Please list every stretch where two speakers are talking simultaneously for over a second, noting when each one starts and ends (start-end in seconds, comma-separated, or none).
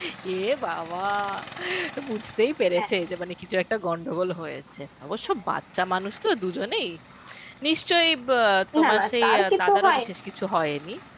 8.8-10.1